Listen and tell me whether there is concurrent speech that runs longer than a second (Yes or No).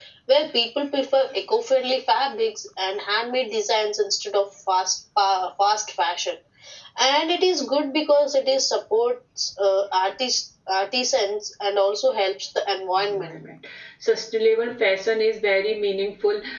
No